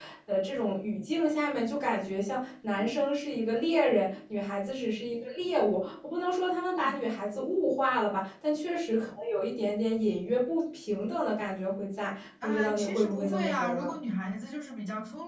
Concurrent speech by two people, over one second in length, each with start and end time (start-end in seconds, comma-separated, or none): 12.4-13.9